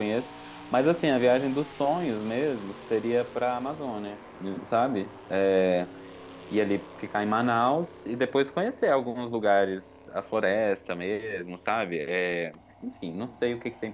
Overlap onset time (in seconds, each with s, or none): none